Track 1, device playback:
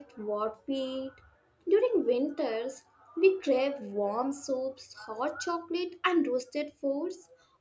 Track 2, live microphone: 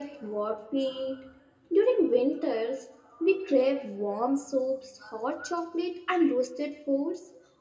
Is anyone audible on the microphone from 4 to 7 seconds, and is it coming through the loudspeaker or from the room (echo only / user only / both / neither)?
echo only